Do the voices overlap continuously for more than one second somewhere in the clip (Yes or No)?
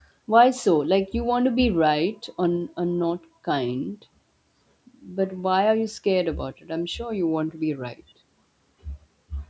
No